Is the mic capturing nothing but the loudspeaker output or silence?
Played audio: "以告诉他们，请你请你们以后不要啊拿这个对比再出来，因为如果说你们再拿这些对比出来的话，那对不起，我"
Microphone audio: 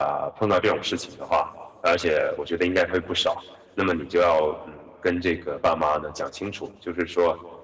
No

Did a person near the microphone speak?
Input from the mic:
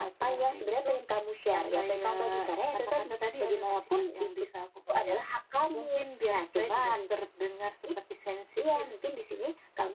No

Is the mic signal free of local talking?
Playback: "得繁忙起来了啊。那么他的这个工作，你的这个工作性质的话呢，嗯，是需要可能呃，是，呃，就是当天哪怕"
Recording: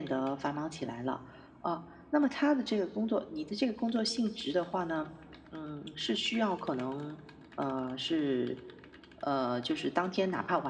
Yes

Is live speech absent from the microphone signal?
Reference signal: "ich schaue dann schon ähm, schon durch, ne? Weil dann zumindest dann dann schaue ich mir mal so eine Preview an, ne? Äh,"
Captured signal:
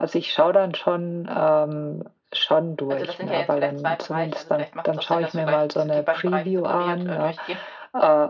No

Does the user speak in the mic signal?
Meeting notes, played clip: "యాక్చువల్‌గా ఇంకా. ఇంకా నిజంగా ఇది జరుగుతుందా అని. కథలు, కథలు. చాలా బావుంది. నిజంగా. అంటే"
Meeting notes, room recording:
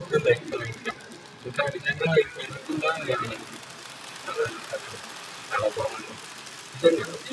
No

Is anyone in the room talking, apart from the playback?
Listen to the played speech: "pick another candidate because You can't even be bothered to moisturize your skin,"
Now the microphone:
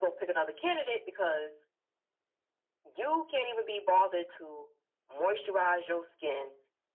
No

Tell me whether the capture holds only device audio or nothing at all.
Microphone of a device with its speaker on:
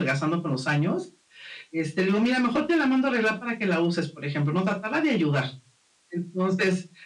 Yes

